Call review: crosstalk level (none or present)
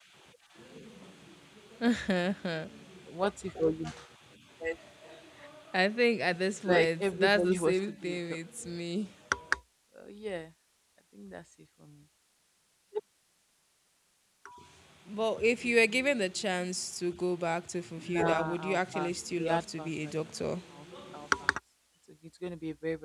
present